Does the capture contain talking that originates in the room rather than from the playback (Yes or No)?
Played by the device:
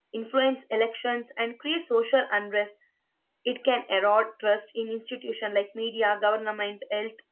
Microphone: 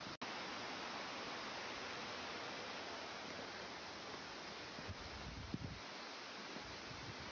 No